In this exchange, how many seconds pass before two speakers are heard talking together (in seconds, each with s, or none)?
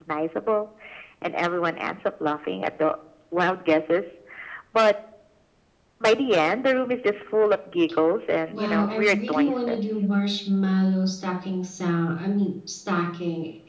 8.5 s